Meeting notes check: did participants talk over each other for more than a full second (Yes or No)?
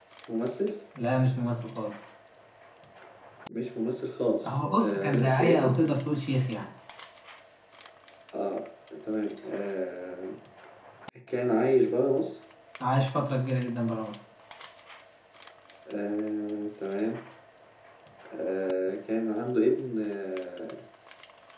Yes